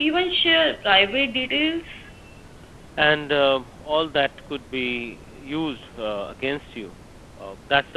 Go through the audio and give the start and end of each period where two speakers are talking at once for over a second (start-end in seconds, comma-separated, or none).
none